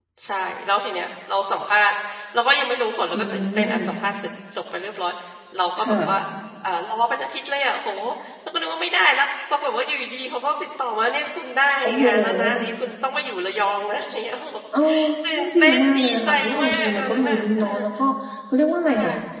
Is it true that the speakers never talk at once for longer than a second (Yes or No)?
No